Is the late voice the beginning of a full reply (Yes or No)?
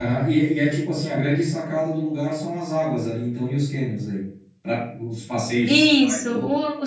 Yes